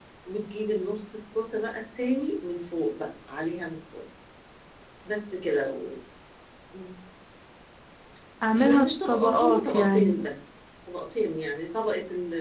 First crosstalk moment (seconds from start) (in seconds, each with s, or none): 8.6 s